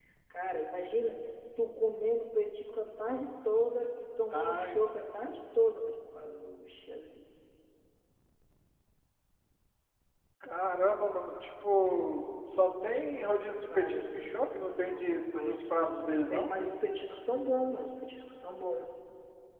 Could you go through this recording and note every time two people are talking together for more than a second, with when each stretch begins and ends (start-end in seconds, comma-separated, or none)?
13.7-16.5